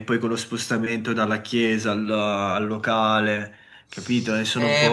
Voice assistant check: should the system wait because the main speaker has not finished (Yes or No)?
No